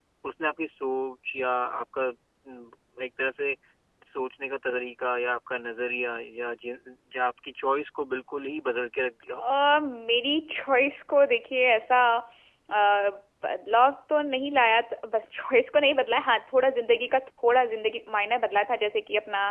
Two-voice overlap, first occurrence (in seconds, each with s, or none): none